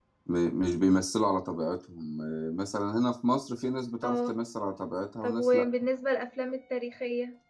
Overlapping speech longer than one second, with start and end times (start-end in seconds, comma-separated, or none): none